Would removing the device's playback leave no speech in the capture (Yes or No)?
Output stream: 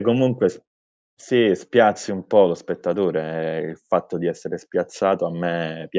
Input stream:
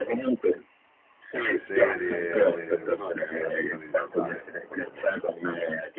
No